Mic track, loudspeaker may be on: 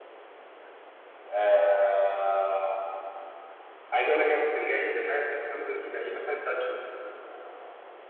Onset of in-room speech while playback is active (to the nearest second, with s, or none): none